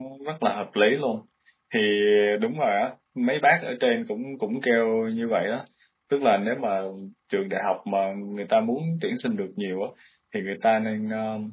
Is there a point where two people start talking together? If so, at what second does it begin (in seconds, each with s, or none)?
none